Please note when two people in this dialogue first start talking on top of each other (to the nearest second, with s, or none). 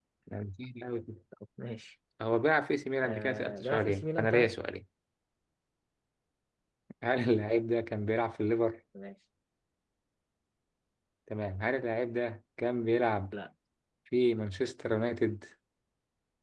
3 s